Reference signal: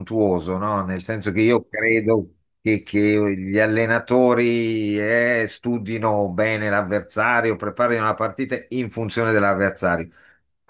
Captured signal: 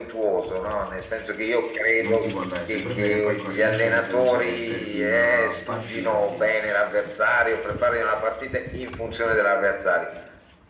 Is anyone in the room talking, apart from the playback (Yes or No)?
Yes